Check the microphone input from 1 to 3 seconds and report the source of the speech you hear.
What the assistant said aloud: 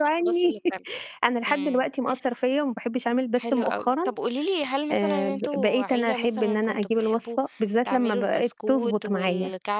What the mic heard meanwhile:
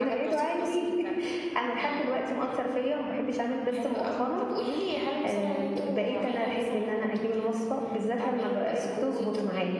echo only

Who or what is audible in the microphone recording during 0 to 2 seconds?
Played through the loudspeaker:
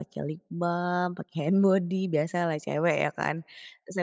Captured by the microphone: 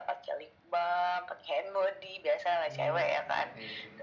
echo only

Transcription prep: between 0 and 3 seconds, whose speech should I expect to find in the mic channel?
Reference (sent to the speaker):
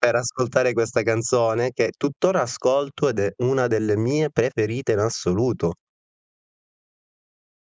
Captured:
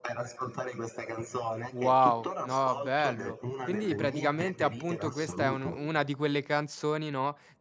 both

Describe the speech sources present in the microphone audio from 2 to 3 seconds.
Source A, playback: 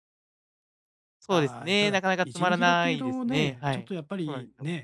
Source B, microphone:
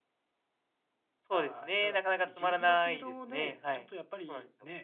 echo only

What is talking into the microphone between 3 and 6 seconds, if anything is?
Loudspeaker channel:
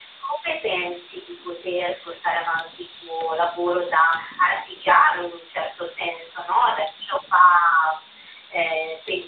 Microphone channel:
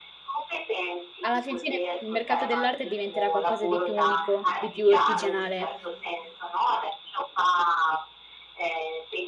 both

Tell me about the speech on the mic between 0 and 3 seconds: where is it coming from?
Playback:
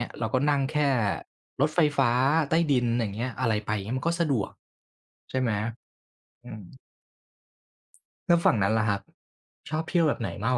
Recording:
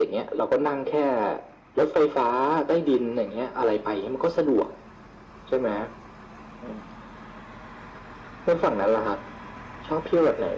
echo only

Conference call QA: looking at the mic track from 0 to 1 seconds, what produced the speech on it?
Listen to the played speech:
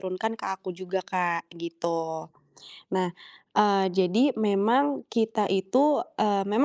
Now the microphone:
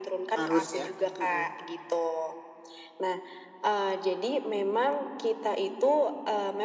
both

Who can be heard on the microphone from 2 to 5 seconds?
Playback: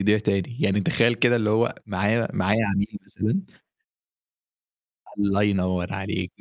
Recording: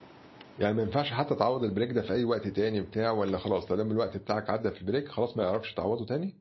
user only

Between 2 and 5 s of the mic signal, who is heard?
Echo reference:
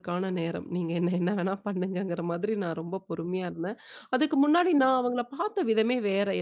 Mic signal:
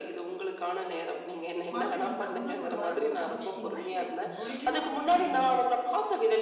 both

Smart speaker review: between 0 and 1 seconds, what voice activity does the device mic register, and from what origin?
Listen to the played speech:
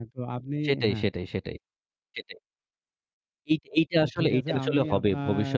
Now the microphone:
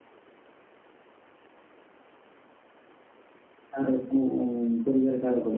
neither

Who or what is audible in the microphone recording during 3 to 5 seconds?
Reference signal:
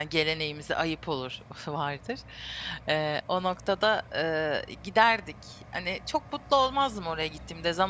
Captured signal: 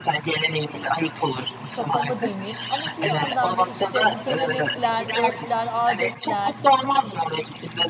both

